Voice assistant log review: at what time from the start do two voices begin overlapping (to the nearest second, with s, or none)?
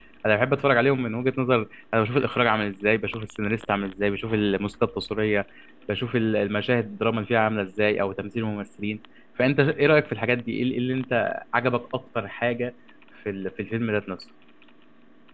none